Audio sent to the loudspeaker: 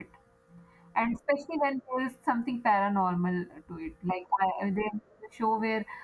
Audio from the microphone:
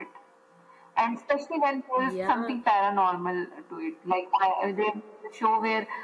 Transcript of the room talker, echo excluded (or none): Yeah,